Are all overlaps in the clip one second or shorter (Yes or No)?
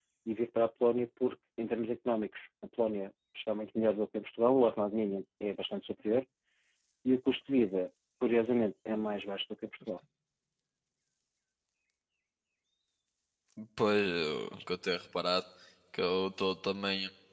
Yes